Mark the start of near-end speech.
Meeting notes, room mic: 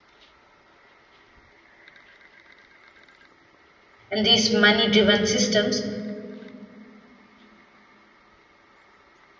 4 s

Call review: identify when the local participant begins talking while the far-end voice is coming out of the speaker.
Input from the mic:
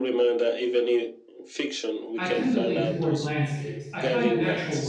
2 s

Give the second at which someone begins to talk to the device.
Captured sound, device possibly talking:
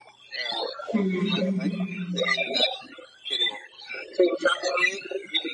1 s

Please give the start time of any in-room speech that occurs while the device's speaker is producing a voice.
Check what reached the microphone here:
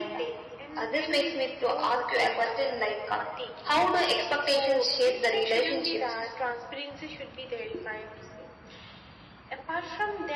none

